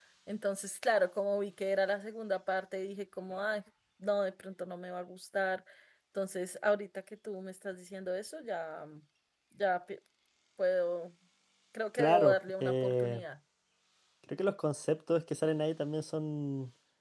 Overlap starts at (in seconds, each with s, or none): 12.0 s